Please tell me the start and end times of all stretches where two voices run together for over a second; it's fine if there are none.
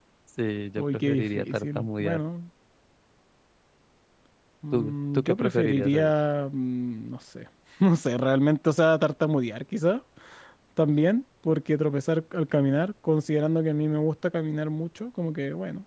0.8-2.2, 4.7-6.1

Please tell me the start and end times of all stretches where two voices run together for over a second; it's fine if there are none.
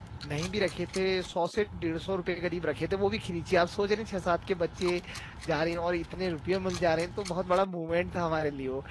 none

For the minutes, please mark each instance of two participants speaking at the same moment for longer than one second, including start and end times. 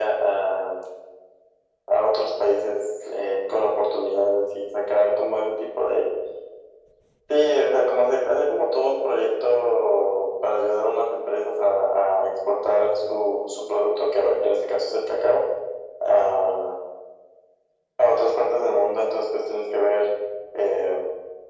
none

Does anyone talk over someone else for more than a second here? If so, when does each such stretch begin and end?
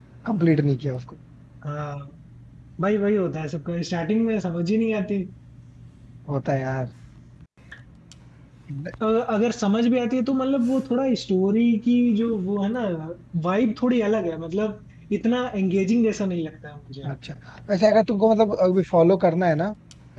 none

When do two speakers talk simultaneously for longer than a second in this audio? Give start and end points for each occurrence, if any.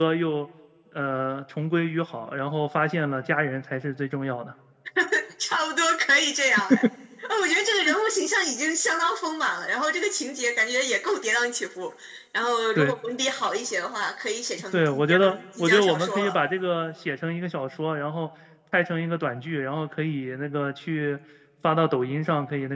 14.7-16.4

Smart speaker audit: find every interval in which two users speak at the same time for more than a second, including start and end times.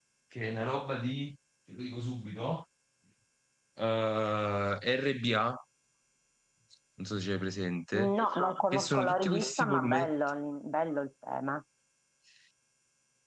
8.7-10.1

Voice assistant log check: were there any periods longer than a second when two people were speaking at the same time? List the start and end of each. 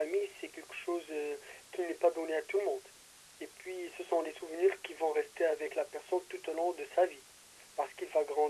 none

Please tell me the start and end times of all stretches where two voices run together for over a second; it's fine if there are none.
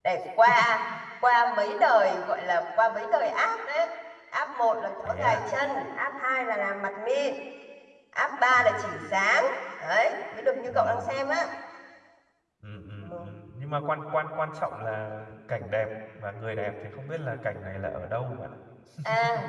none

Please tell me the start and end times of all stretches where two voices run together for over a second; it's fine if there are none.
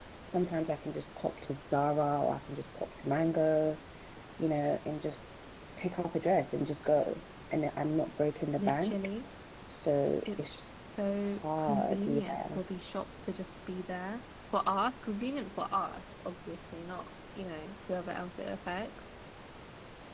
11.3-12.6

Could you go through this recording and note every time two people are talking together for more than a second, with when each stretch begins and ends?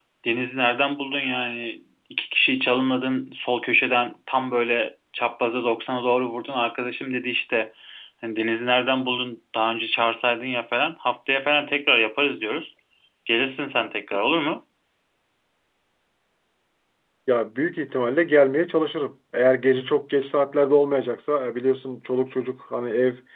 none

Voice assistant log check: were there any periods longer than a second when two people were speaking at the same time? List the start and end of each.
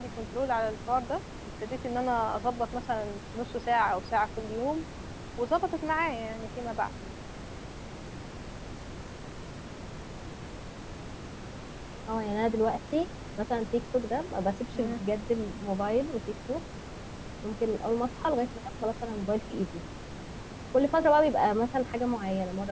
none

